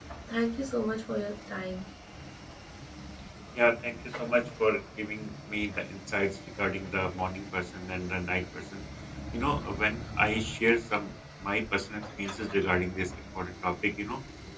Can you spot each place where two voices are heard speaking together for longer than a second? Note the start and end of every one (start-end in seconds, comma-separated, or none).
none